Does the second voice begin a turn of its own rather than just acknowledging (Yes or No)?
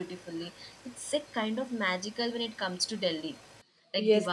Yes